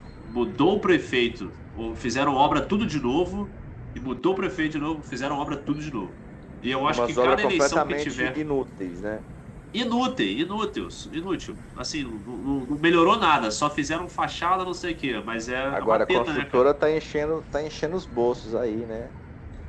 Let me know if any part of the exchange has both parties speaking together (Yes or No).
Yes